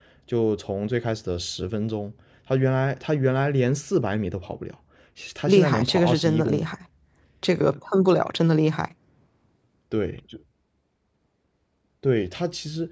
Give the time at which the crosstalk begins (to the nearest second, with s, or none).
5 s